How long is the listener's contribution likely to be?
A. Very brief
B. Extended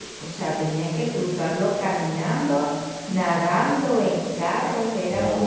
B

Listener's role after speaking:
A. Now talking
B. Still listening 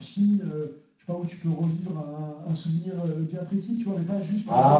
B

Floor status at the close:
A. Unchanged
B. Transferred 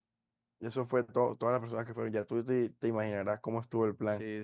B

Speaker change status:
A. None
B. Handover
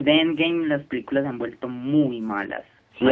B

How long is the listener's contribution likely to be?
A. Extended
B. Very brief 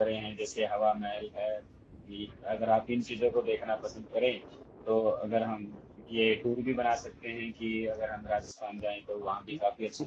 A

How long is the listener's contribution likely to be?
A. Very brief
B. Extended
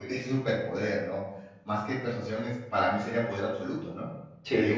A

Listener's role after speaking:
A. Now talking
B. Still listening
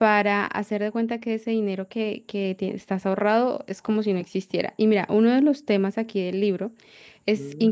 B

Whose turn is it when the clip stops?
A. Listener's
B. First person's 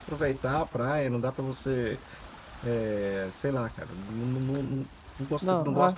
B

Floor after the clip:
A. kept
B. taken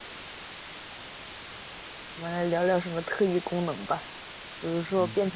A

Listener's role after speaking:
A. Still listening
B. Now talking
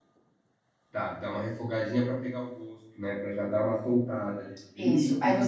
B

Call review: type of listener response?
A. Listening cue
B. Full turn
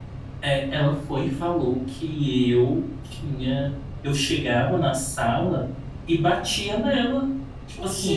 A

